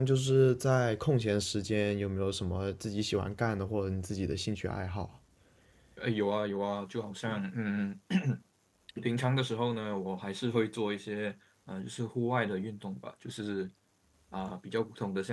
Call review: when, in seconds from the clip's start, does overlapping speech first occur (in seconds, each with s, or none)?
none